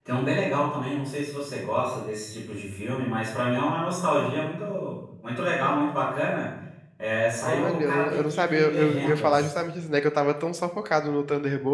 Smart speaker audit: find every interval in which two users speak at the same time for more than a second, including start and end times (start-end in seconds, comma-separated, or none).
7.4-9.5